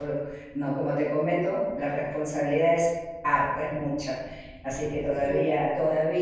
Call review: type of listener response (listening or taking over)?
listening